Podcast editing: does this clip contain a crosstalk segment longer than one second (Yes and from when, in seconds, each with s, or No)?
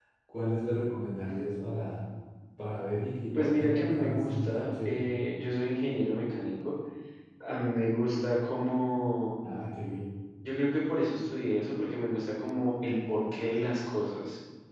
Yes, from 3.3 s